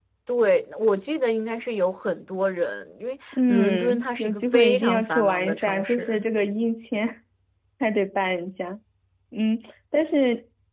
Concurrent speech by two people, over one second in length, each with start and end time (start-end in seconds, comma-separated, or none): 3.4-6.2